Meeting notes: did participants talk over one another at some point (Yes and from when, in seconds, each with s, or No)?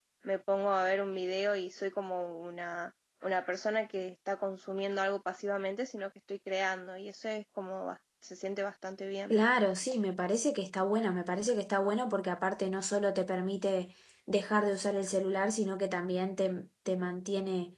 No